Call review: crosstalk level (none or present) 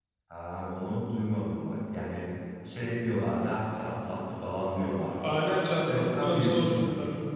present